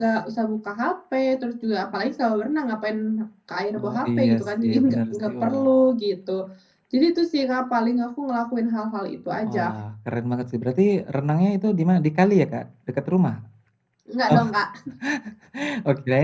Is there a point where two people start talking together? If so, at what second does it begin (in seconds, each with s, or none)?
3.8 s